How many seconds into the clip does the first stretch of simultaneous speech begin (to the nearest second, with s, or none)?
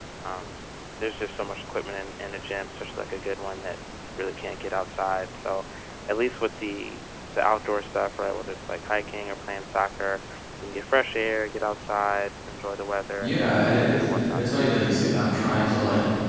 13 s